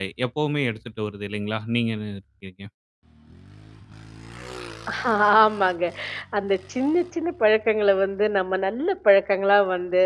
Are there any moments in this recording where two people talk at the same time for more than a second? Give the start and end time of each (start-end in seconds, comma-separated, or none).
none